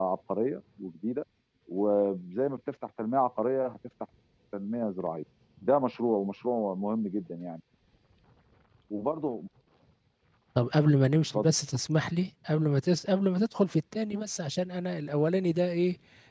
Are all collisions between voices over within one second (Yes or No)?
Yes